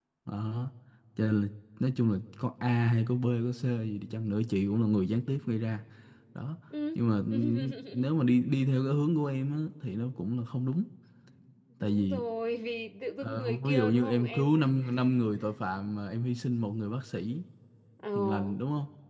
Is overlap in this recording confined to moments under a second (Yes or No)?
No